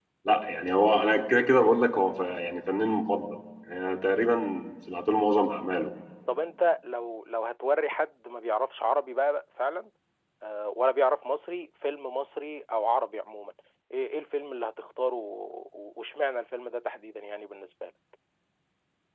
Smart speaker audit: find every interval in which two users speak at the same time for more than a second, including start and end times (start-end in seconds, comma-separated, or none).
none